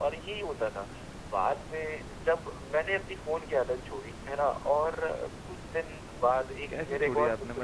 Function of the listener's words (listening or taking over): taking over